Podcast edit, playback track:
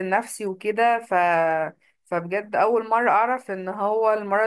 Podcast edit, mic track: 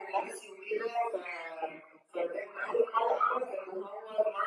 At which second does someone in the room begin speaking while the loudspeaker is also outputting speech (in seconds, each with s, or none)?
none